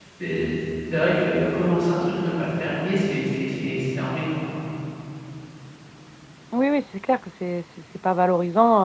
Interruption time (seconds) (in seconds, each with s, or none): none